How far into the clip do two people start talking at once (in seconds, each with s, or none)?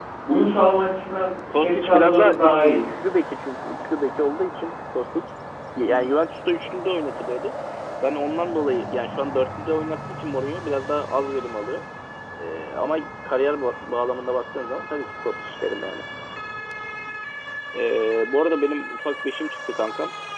1.5 s